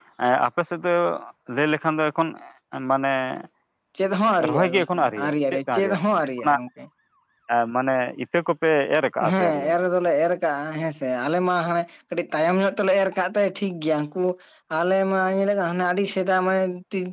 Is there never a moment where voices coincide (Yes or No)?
No